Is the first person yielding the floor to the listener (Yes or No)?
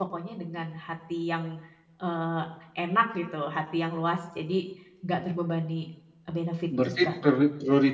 Yes